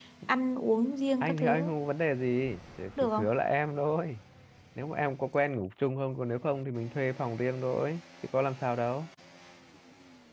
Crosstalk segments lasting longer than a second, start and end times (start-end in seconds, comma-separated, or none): none